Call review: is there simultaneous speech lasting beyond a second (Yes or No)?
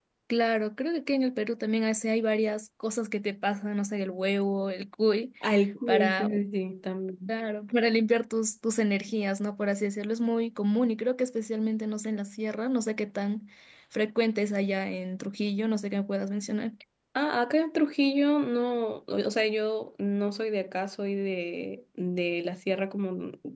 No